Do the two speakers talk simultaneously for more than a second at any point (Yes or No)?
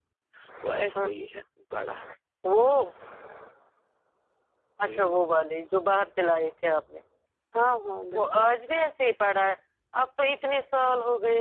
No